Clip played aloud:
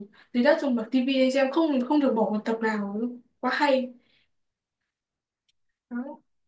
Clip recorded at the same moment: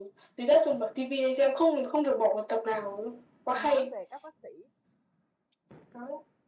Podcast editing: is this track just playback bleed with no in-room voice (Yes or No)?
No